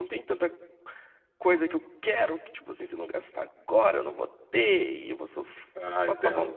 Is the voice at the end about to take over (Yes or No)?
No